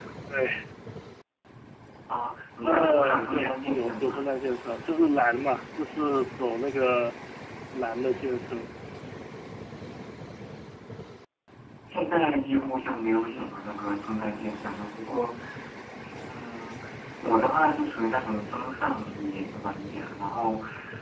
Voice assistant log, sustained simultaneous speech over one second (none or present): present